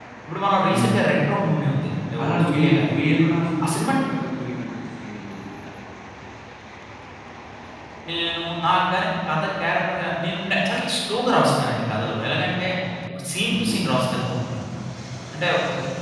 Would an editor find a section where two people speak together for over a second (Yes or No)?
No